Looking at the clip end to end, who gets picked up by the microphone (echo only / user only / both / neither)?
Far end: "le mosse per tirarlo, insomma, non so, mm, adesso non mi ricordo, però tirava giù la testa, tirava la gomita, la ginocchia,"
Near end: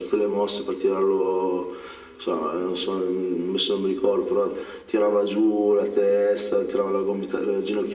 echo only